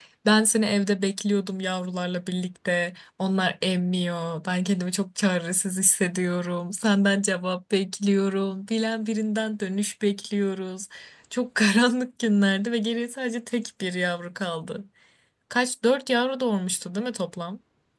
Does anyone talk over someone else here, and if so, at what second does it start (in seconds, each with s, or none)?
none